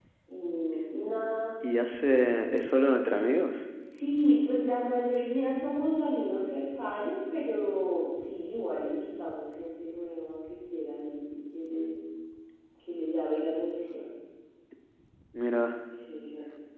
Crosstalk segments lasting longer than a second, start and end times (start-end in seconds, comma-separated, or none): none